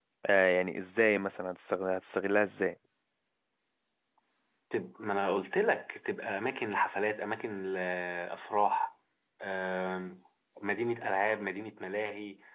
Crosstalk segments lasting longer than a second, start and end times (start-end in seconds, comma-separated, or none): none